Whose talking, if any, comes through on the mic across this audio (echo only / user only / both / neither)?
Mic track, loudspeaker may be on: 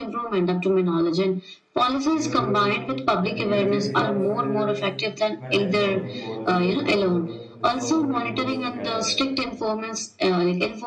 both